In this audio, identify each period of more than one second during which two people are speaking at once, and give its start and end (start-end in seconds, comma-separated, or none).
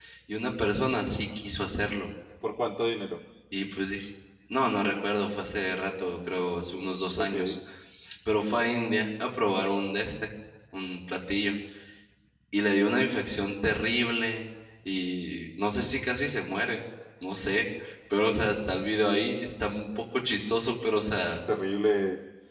none